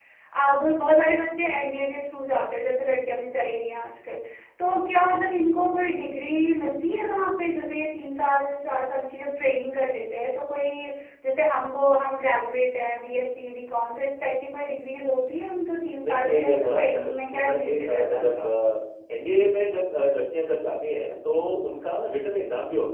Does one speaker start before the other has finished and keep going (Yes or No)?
Yes